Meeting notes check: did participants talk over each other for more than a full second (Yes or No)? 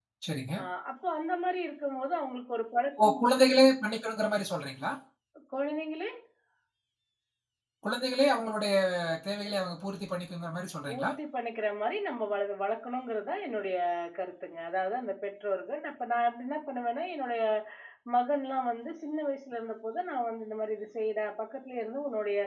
No